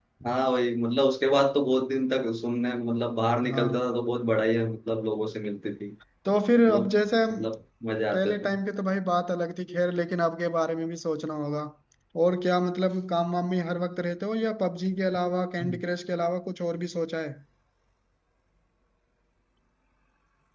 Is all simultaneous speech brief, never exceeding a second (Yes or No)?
Yes